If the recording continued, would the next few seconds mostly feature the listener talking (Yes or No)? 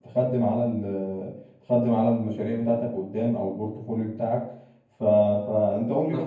No